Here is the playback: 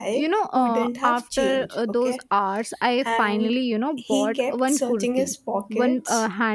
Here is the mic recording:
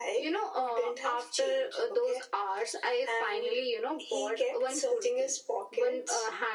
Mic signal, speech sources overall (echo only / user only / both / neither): echo only